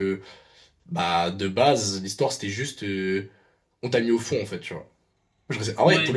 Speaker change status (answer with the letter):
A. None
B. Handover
A